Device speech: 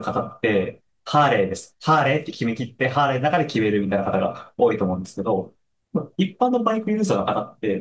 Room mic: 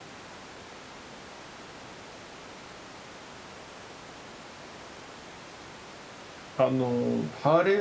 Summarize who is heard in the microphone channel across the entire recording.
user only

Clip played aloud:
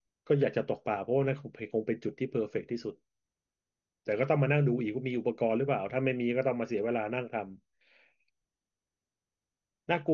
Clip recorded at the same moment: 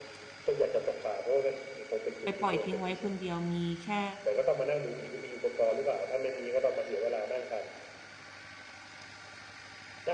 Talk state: both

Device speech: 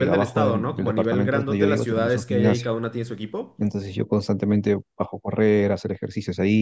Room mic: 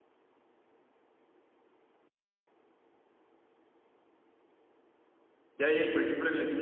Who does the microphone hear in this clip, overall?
user only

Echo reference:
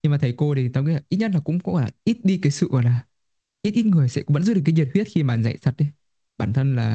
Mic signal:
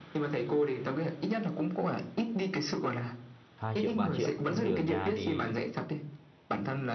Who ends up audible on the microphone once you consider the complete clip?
both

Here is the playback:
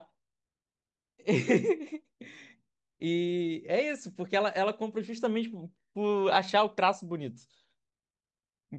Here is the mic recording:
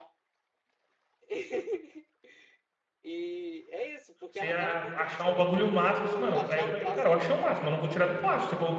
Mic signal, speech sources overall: both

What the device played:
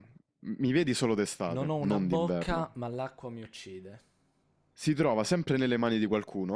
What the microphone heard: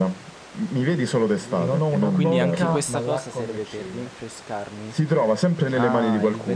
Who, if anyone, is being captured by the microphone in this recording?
both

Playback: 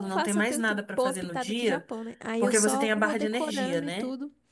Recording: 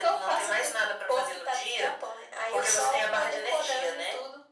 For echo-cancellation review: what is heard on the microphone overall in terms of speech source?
echo only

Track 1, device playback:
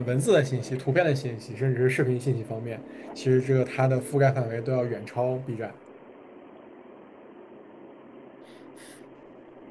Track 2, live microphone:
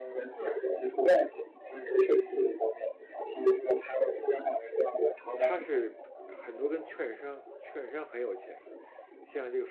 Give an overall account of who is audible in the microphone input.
both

